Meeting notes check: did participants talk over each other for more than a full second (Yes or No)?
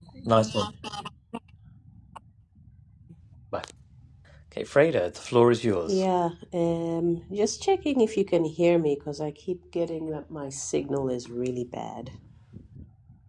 No